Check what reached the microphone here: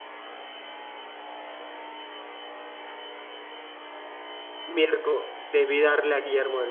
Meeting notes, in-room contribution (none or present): present